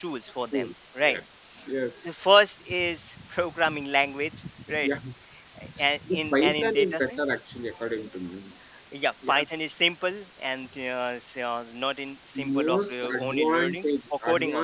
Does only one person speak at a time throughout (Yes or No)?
No